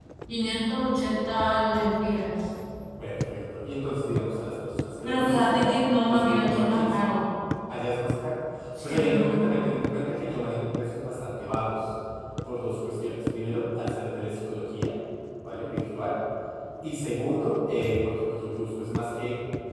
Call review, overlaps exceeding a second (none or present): present